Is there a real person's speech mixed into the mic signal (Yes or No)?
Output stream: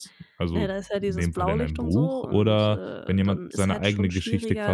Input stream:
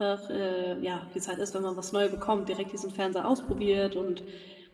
Yes